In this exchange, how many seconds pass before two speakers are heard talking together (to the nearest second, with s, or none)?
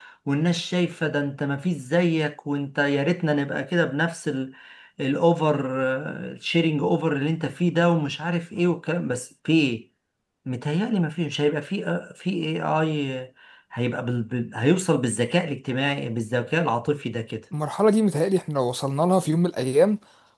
none